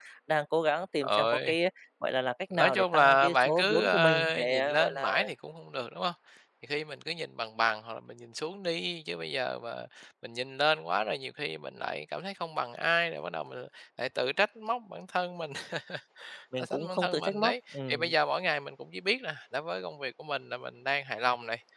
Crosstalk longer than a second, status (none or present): present